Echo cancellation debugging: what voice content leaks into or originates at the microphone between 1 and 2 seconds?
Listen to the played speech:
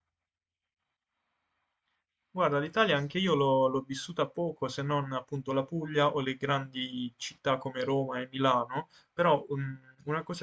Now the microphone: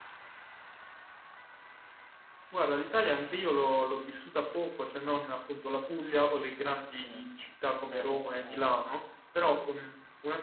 neither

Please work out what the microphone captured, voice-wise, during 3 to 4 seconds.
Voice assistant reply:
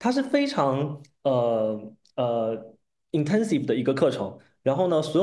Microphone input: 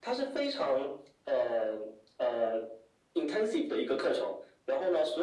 echo only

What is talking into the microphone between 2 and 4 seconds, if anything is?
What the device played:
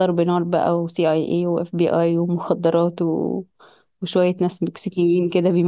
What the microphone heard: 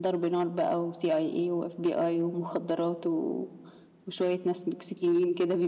echo only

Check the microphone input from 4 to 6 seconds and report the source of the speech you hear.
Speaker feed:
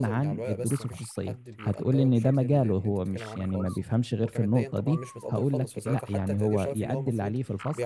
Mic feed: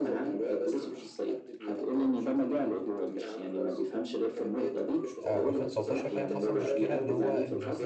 both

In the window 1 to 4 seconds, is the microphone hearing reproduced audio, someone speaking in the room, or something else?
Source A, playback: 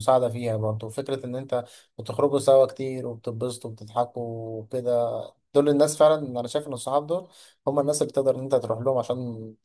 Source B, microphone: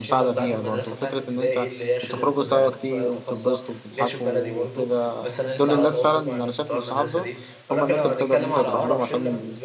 both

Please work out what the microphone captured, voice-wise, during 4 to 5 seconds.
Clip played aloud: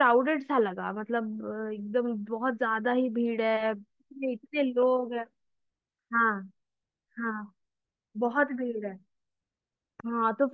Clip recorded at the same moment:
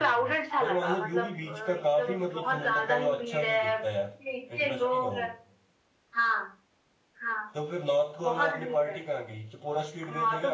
both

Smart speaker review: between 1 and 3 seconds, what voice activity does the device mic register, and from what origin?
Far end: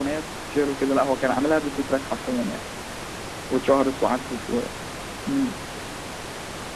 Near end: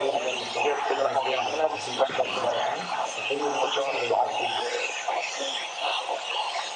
both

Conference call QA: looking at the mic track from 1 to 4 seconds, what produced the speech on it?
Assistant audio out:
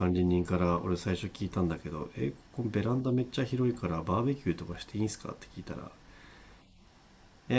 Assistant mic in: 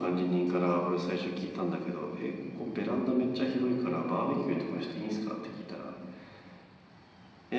echo only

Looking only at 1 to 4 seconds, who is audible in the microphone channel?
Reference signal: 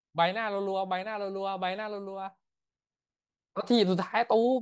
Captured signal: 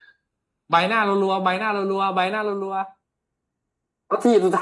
echo only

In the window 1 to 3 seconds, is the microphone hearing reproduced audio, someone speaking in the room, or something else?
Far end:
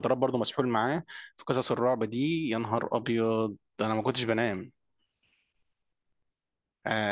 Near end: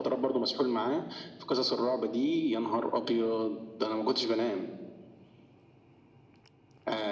echo only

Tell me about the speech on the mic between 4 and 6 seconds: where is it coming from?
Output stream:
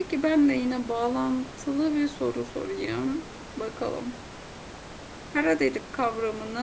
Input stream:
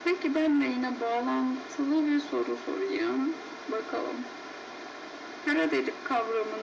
echo only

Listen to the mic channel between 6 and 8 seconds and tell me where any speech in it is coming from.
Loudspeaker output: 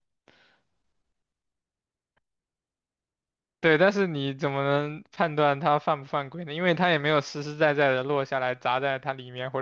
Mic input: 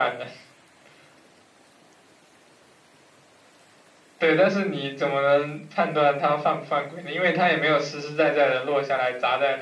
echo only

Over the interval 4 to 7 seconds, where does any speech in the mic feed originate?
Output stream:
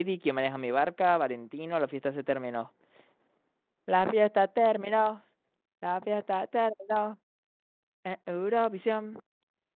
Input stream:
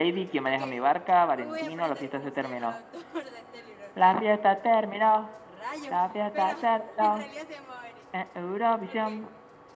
both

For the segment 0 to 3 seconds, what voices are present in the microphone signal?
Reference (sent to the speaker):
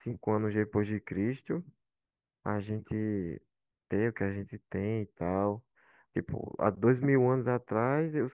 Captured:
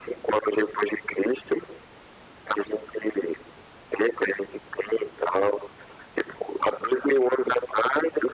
echo only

